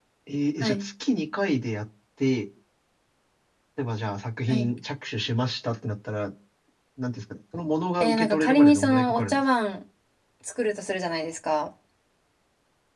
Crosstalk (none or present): present